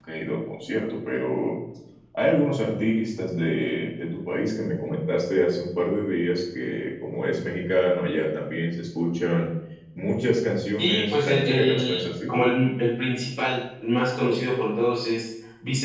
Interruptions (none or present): present